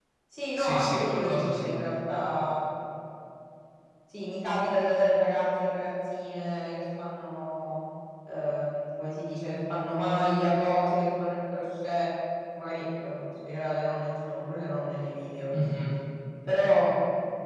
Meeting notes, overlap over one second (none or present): present